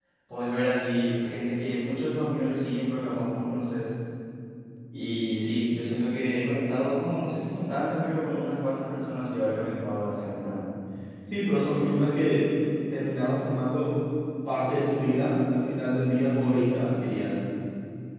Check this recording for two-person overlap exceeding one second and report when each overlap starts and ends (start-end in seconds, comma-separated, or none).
none